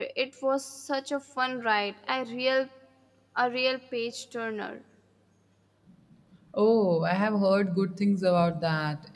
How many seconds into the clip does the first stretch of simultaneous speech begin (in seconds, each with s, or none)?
none